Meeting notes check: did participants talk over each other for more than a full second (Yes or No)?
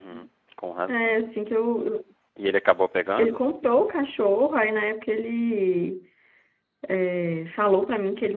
No